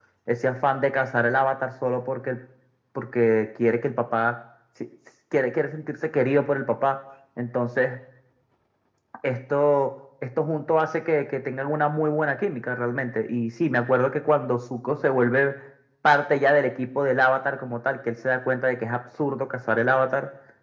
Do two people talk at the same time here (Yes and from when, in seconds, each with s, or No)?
No